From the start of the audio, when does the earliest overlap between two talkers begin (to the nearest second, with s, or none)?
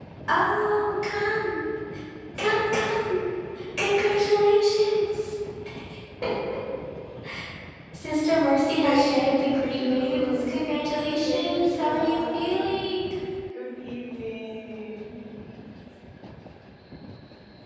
9 s